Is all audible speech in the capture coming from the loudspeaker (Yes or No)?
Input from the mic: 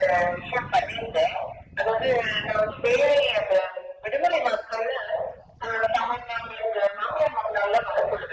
Yes